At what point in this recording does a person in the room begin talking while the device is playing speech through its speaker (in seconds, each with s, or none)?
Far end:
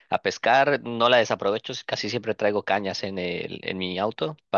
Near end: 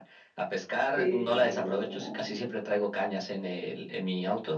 0.9 s